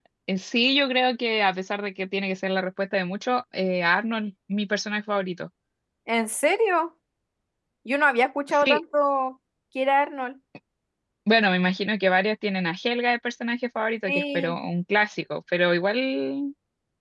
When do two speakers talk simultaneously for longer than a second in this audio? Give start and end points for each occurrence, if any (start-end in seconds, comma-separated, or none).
none